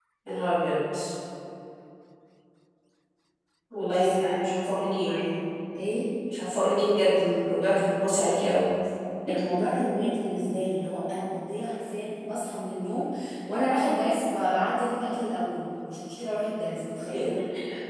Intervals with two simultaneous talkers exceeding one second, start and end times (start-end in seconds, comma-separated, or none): 3.9-5.1